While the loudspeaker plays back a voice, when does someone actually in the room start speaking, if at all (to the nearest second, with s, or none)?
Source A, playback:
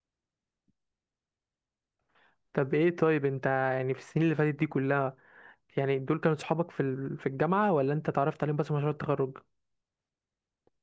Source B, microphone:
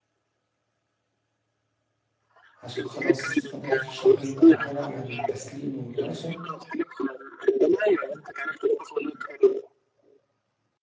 3 s